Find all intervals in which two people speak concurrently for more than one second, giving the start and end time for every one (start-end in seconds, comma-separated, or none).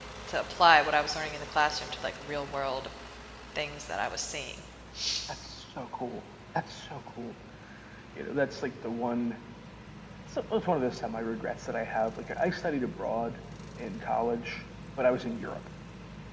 none